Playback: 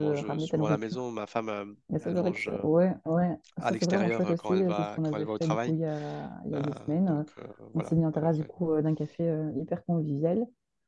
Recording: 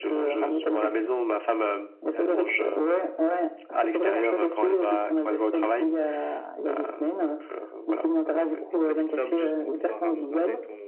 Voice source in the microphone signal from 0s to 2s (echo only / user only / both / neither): echo only